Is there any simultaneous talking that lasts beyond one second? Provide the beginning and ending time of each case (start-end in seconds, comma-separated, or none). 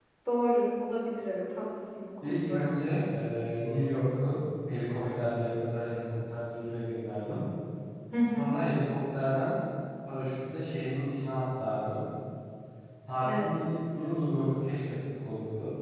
none